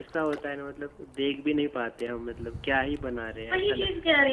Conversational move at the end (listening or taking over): taking over